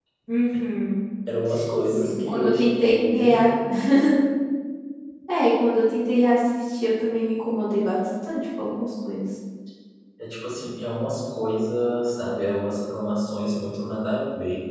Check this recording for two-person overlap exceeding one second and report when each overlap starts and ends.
1.9-3.4

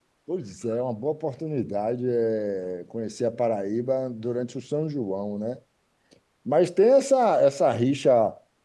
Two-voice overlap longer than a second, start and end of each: none

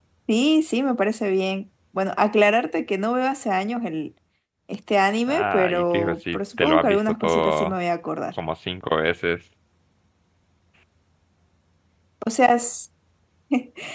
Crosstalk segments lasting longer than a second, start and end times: 5.3-7.7

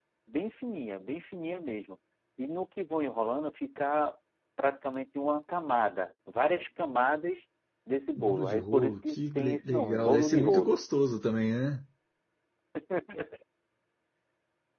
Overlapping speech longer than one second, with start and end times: 8.2-10.8

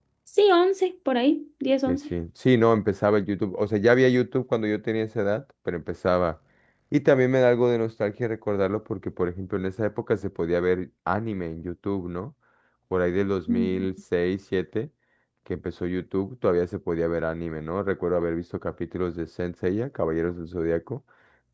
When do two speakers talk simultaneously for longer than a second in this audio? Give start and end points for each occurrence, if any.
none

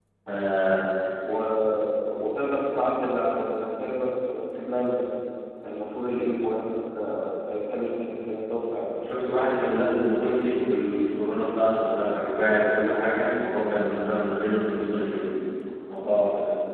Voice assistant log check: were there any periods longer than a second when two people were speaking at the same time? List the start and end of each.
none

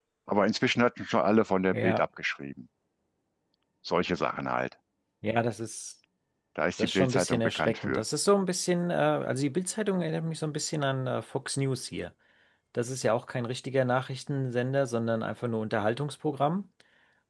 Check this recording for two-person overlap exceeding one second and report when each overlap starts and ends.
6.8-8.0

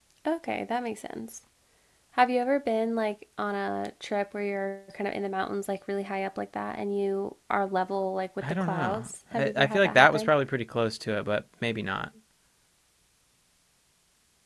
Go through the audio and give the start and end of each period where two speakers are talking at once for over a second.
8.5-10.3

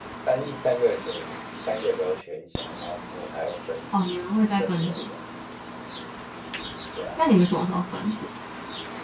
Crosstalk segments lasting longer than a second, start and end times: none

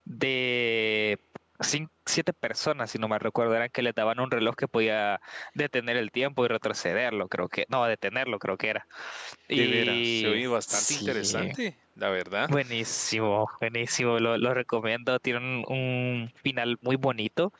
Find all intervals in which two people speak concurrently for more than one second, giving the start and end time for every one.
9.5-11.5

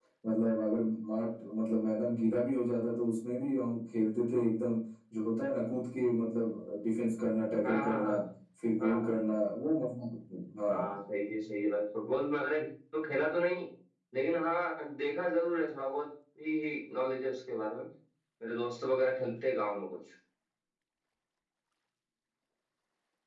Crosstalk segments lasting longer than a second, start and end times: none

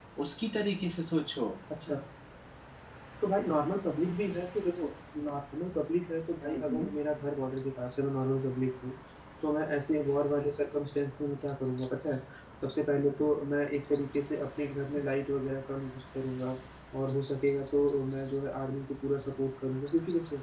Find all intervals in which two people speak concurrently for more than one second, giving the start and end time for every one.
none

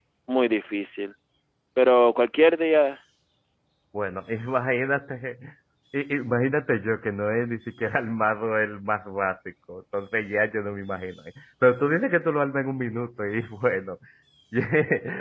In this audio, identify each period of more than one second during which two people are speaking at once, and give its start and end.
none

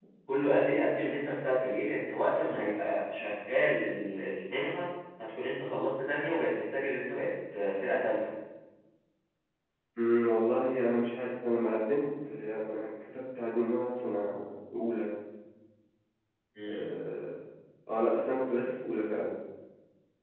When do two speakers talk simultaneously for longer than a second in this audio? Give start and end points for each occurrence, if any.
none

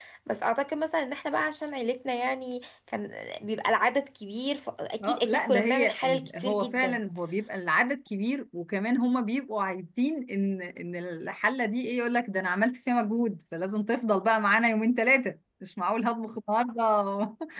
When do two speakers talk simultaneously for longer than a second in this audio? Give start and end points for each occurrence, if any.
5.0-7.0

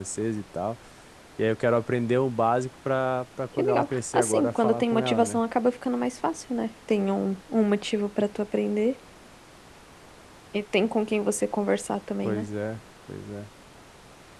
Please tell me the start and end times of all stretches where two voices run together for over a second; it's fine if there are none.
3.6-5.4

